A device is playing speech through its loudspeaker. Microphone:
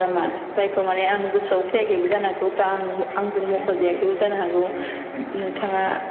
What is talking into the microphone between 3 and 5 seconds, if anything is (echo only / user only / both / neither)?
both